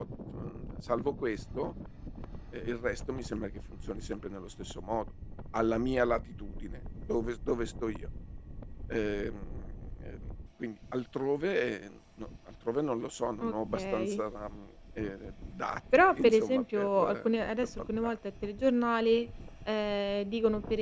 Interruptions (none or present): present